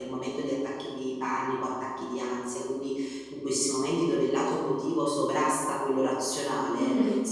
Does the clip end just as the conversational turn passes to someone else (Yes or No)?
No